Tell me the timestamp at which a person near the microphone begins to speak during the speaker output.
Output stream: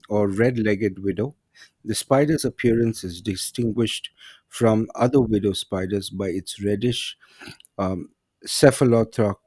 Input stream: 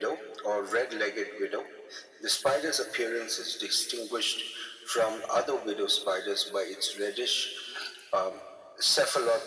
none

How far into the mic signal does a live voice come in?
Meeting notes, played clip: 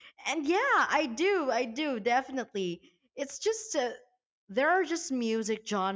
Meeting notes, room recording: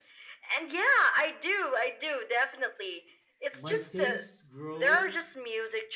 3.5 s

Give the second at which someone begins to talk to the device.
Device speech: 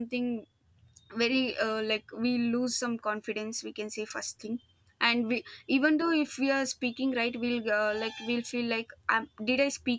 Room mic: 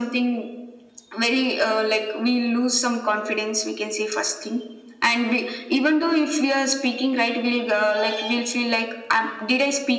none

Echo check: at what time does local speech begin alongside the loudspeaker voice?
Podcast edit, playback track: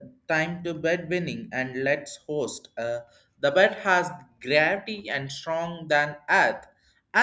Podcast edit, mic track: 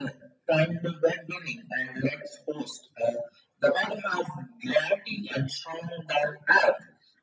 none

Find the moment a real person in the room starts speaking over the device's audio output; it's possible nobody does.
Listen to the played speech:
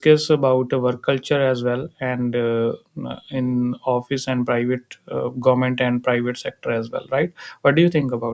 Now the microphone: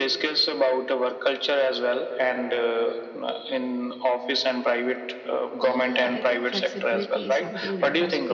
5.6 s

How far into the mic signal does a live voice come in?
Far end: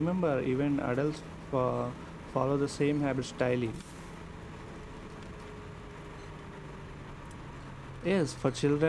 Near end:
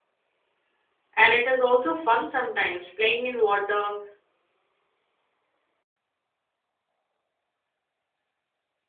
1.1 s

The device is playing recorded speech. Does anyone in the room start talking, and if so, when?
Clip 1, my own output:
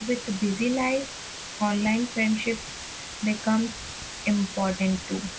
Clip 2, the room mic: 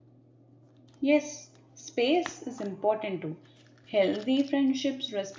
1.0 s

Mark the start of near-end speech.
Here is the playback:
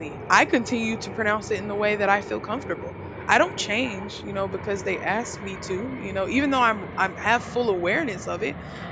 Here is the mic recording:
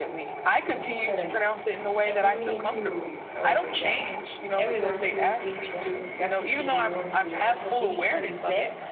0.6 s

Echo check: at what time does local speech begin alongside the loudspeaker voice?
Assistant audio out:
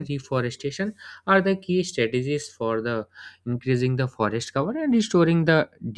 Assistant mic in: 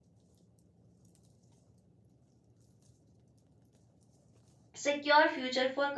4.7 s

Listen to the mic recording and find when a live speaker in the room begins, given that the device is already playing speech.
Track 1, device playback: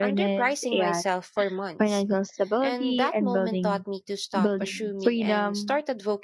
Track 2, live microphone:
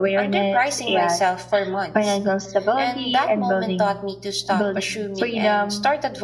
none

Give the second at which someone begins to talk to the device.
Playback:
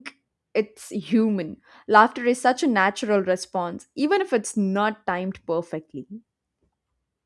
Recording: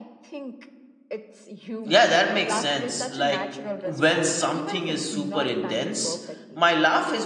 1.8 s

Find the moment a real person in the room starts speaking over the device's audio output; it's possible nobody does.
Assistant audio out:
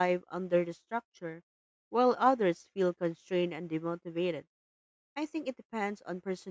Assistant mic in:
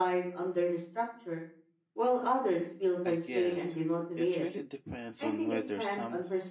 3.0 s

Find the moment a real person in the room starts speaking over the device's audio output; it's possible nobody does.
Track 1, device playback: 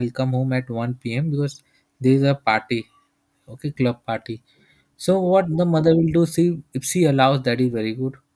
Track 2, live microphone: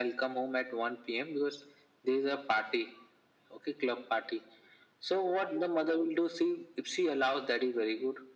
none

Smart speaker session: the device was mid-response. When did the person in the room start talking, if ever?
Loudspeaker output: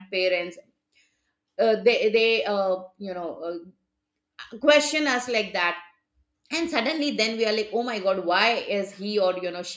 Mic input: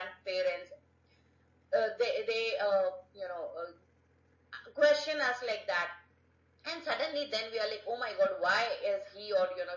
none

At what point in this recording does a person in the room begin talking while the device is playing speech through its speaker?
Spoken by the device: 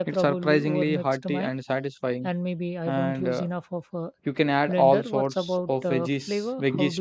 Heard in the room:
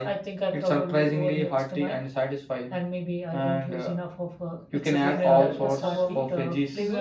4.7 s

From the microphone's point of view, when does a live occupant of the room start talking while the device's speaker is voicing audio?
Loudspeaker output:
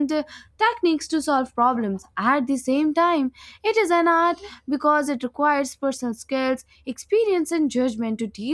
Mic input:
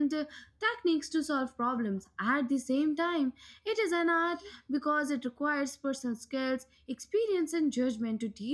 none

